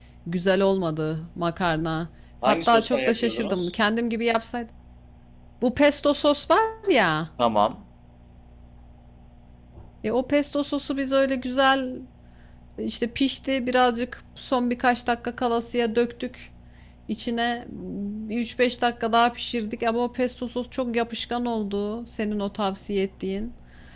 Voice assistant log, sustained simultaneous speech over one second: present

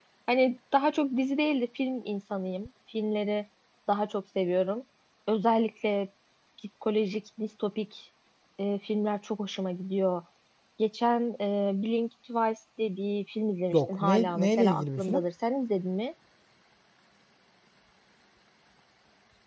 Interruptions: present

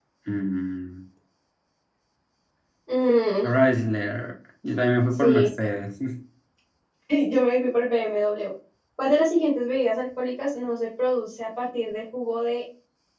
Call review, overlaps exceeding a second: none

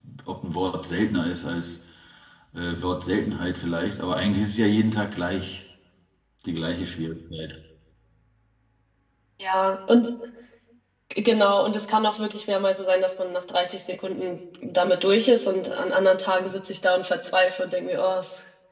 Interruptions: none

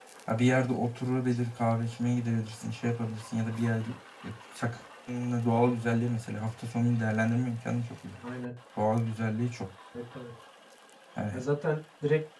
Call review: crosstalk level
none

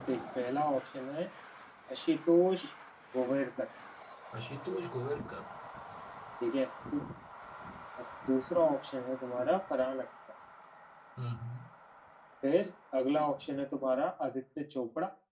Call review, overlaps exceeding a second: none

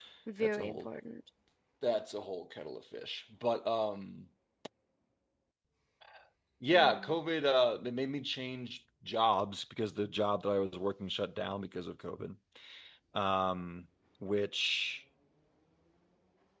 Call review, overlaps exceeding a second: none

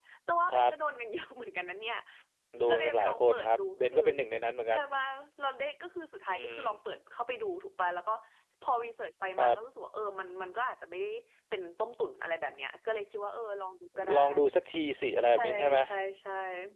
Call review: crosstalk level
present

